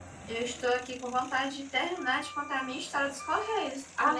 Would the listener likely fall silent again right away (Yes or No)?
No